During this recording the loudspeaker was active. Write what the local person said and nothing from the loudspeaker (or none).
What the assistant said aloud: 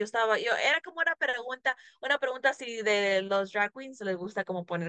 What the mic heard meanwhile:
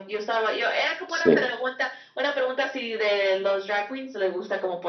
sí,